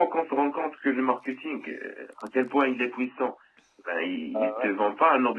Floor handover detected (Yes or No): No